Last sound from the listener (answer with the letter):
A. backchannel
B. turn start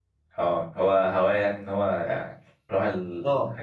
B